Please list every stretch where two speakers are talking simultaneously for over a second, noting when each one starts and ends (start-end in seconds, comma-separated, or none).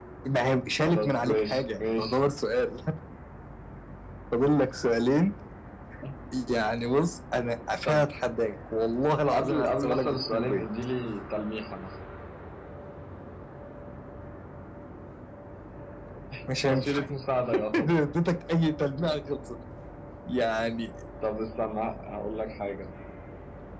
0.8-2.2, 9.3-10.6